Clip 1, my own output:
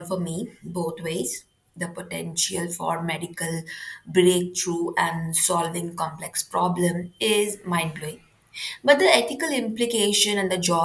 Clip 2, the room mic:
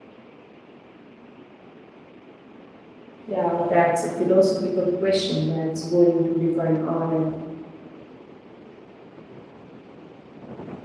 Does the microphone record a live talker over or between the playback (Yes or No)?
Yes